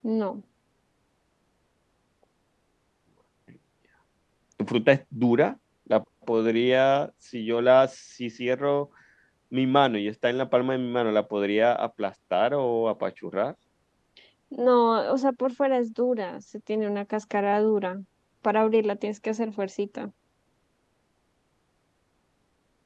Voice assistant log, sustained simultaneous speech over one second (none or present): none